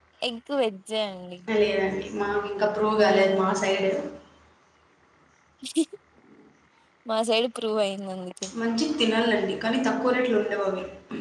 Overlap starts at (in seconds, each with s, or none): none